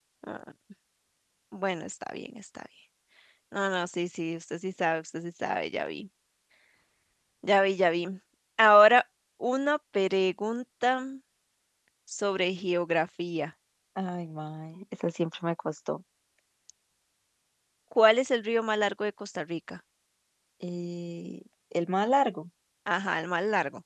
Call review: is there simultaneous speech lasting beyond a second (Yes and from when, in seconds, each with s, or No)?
No